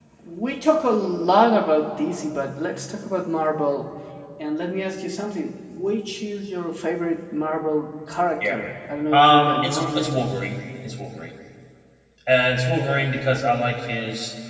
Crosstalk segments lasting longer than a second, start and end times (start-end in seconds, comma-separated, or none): 9.1-10.4